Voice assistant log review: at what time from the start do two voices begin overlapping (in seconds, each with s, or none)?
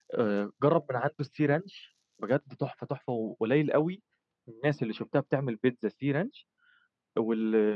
none